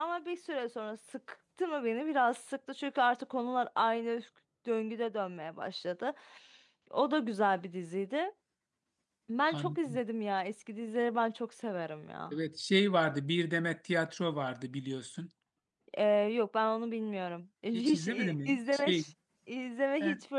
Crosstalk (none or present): present